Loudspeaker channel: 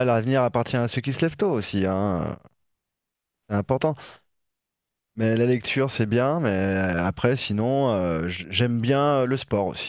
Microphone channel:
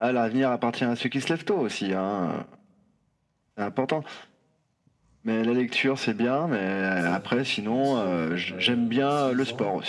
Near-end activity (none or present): present